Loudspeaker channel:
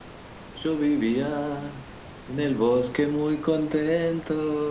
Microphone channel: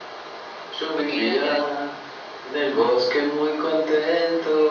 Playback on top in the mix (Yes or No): Yes